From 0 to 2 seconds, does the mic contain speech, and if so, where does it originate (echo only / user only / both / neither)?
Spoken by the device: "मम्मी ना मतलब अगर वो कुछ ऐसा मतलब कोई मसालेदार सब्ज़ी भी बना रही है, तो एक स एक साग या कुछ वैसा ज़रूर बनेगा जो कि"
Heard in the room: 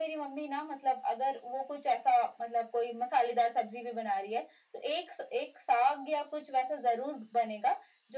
echo only